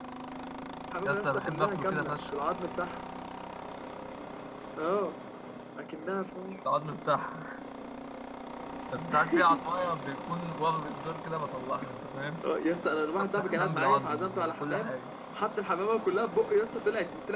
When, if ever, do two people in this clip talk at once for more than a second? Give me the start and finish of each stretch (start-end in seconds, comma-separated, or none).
1.1-2.3, 13.3-15.0